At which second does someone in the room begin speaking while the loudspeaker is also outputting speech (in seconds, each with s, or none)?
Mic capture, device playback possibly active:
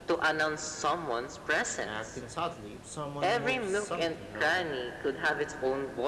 1.8 s